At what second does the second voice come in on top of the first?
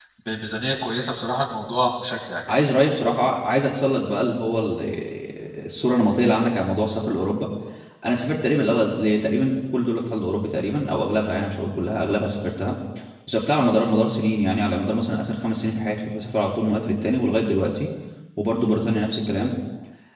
none

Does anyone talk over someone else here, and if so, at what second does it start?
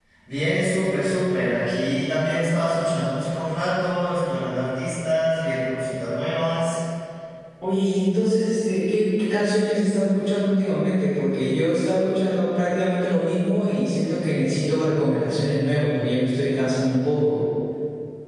none

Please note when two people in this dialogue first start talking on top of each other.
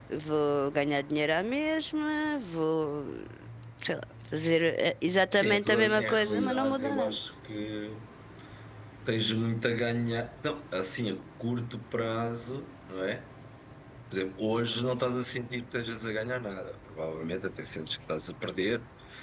5.3 s

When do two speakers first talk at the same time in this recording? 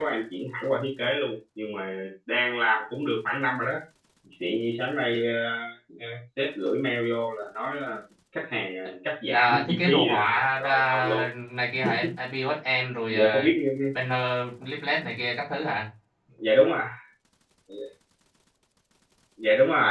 9.3 s

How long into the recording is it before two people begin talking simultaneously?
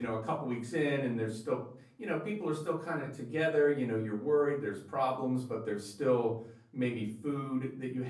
none

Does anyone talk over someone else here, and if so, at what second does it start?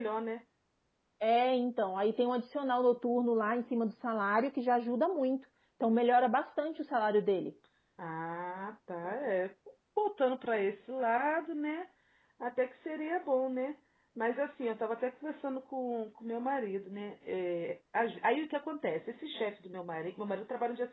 none

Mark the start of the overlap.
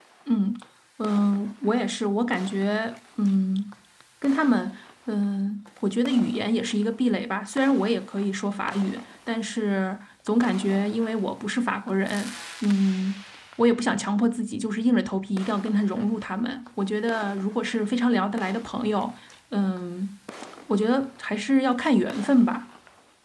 none

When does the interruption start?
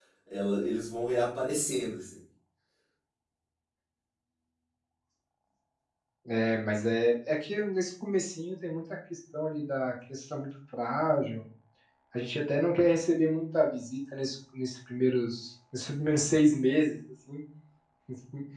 none

